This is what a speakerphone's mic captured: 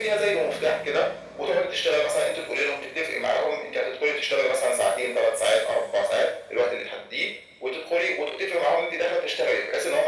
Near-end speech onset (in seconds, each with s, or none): none